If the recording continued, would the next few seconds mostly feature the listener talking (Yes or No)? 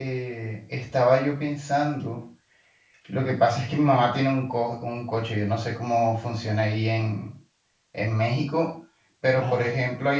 No